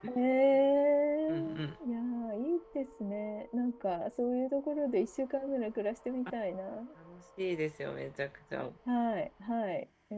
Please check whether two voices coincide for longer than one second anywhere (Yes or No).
No